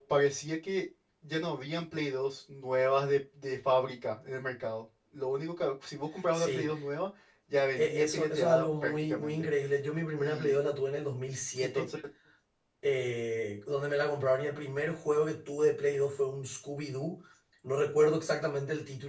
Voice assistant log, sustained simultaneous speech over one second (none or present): present